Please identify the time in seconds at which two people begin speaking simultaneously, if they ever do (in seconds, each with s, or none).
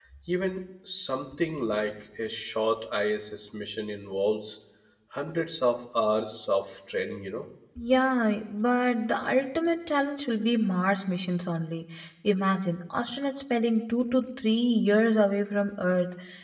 none